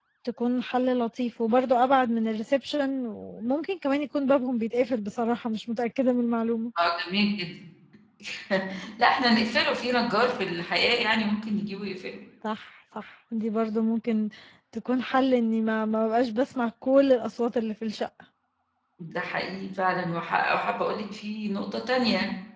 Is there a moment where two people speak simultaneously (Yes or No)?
No